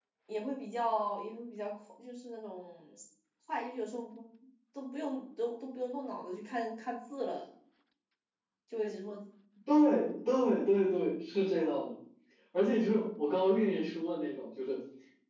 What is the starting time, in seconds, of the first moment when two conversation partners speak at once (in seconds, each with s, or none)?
none